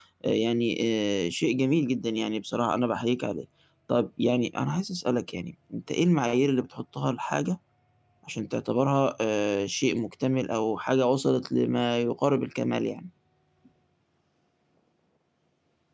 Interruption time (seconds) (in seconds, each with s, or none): none